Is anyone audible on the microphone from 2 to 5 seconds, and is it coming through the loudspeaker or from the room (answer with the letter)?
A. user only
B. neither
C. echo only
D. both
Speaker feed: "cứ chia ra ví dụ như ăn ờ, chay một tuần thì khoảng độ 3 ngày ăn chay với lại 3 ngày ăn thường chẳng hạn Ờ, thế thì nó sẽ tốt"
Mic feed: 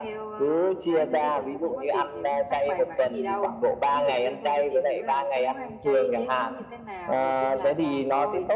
D